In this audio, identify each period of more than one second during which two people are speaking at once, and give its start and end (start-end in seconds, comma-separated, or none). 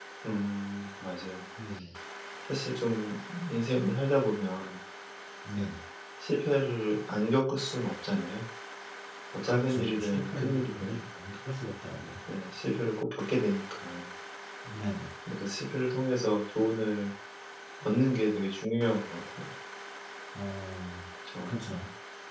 9.5-11.0